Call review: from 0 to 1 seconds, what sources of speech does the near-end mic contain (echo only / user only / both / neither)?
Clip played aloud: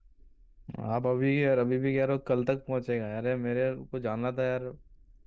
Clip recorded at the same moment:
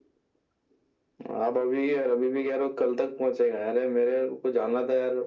neither